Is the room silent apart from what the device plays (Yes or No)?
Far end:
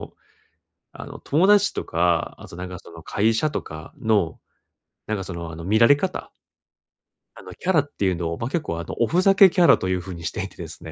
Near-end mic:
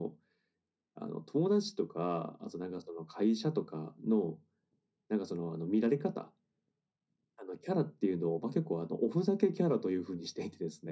Yes